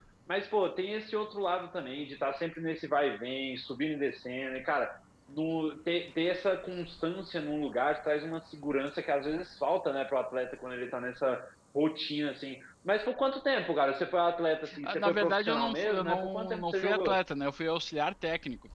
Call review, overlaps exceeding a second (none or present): present